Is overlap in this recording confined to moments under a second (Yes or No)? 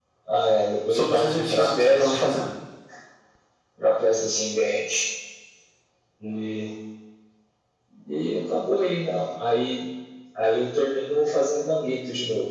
No